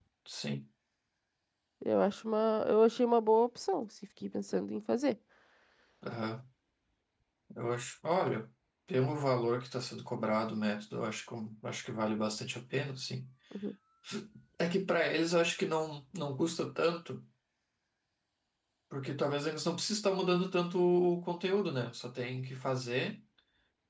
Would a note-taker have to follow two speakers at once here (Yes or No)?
No